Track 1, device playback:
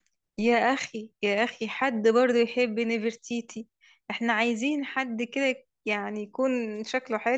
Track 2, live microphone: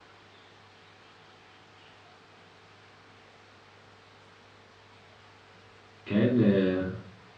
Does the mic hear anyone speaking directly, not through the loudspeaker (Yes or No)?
Yes